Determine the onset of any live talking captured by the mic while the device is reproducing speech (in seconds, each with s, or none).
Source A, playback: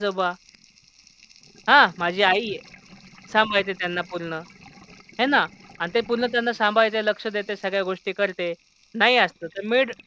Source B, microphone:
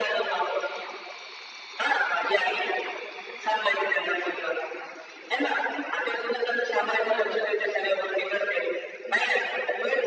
7.0 s